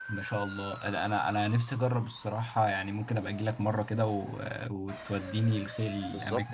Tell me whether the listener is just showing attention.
No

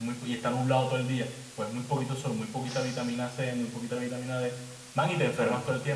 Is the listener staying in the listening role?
Yes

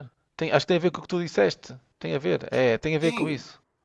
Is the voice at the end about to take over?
Yes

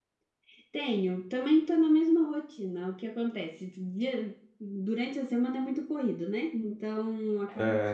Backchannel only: Yes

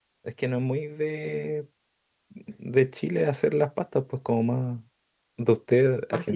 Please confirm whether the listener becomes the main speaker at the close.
No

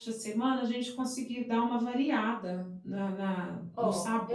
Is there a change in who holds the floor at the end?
Yes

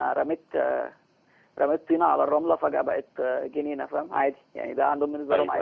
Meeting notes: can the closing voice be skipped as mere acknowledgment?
No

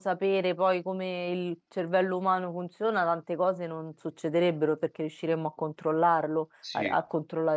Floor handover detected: No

